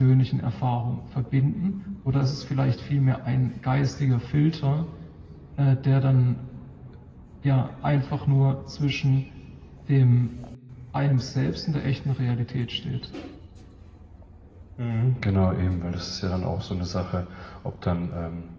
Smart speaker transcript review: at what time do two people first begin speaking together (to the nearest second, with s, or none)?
none